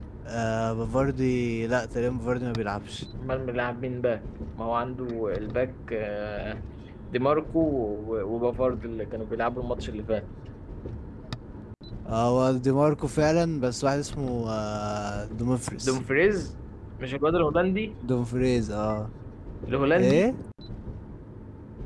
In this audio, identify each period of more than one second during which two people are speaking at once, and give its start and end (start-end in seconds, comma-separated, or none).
none